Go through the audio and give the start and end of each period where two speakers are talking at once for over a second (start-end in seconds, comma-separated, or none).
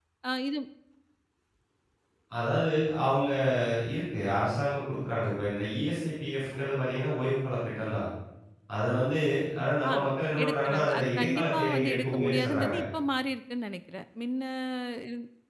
10.4-12.8